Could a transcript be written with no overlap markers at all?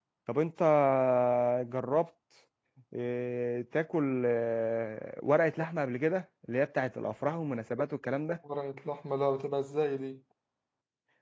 Yes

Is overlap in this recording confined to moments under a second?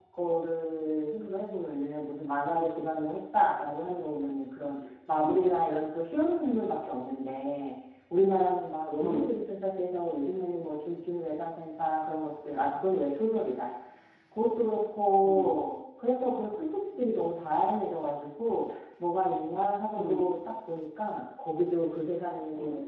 Yes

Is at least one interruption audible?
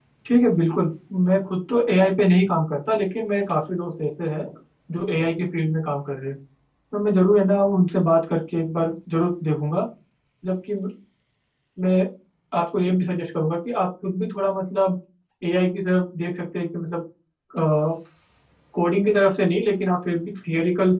No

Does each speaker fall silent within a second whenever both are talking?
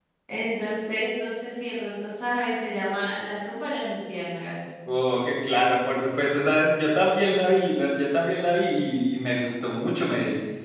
Yes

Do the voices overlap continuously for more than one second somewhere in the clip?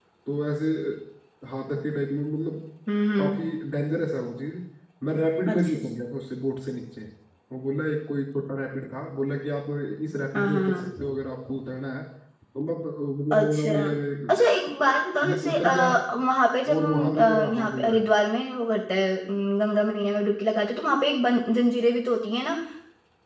Yes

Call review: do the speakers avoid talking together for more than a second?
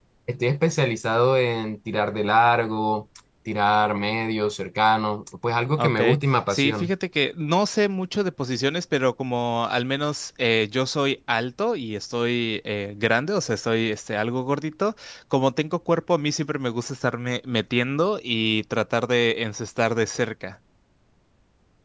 Yes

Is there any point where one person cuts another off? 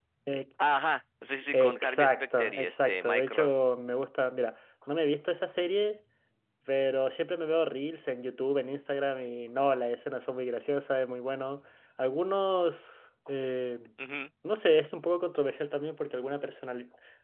Yes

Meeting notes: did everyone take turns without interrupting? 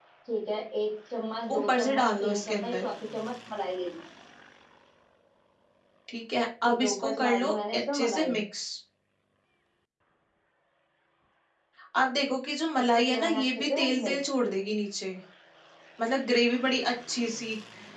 No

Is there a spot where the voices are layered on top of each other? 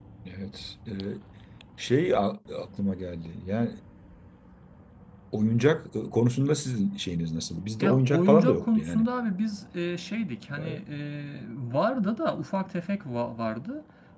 Yes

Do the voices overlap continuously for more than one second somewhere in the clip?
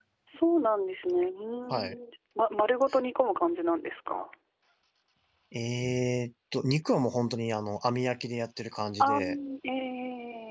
No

